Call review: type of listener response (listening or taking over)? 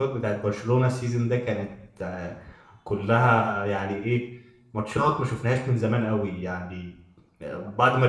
listening